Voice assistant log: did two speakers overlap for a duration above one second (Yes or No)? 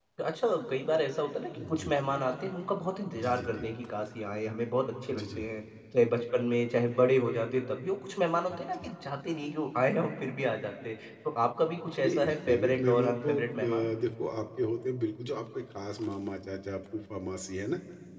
Yes